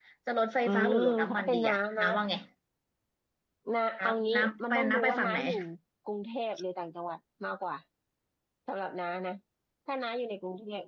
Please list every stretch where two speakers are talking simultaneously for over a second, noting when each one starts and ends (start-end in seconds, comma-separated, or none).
0.7-2.0, 4.0-5.4